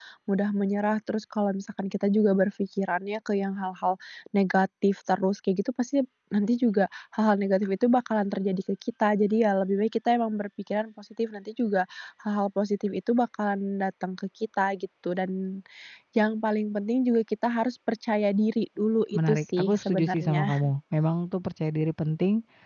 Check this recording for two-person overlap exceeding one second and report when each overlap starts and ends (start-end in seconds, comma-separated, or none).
19.1-20.7